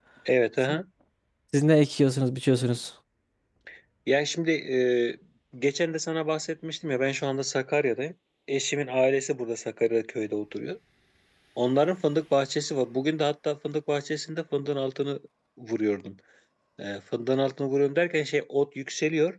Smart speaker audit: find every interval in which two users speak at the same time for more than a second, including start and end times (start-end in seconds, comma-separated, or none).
none